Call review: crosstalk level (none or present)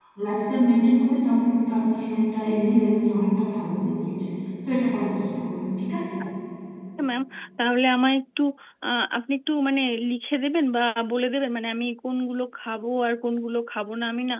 none